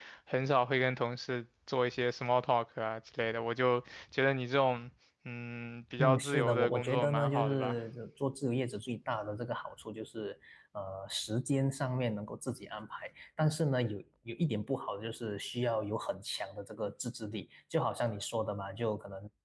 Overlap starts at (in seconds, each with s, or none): 6.0 s